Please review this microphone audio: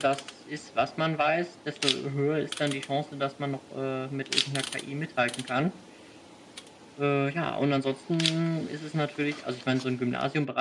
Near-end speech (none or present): none